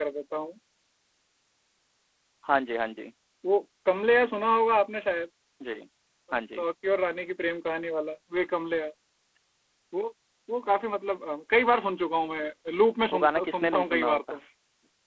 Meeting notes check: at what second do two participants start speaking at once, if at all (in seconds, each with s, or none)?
13.1 s